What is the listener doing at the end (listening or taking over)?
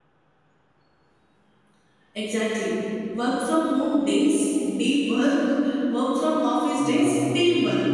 taking over